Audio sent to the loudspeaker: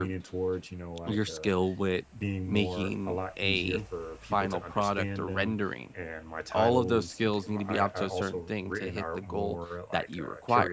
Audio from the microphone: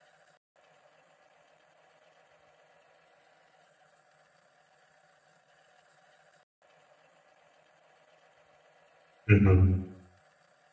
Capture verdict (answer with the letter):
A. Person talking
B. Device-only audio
A